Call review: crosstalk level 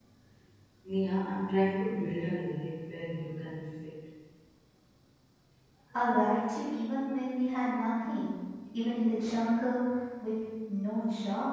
none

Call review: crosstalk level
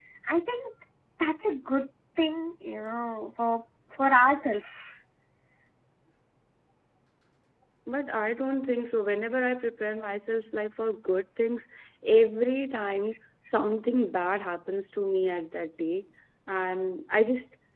none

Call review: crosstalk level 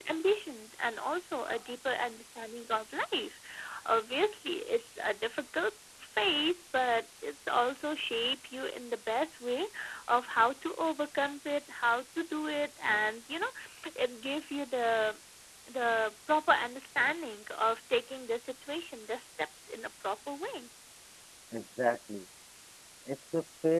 none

